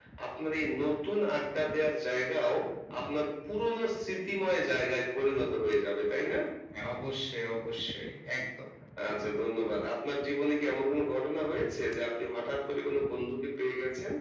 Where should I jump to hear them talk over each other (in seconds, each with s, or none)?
none